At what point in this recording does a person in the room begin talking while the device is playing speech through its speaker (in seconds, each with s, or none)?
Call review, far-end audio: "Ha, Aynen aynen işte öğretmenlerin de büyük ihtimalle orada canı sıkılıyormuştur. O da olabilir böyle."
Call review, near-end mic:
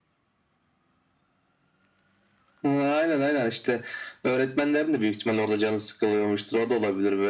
none